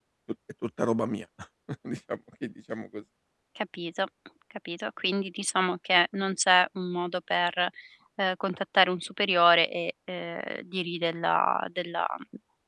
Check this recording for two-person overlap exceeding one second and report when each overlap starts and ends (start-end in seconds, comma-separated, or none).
none